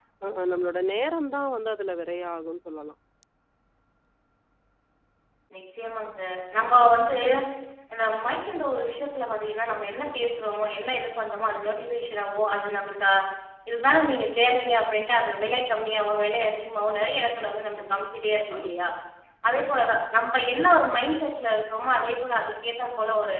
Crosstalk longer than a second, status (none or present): none